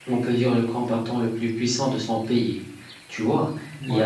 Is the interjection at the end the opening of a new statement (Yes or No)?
No